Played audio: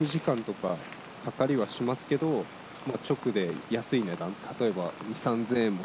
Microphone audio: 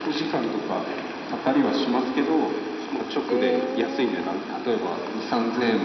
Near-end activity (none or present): present